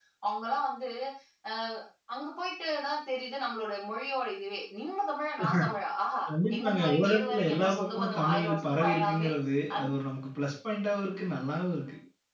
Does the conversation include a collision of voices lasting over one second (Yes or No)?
Yes